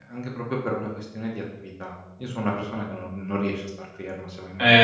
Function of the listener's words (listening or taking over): taking over